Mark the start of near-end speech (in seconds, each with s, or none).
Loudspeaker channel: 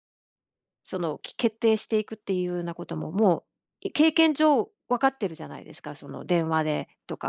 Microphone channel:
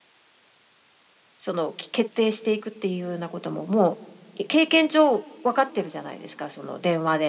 none